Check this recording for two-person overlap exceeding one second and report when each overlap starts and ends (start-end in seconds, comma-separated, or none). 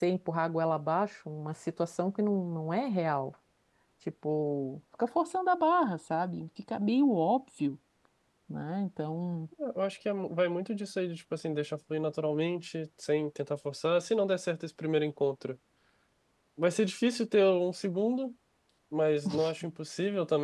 none